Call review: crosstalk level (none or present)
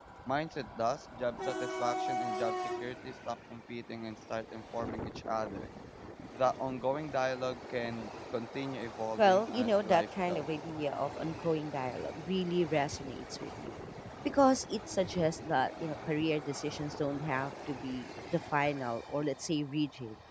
present